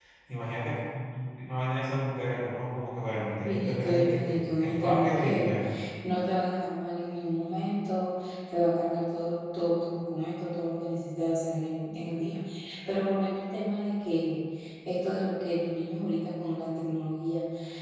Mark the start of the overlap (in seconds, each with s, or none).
3.2 s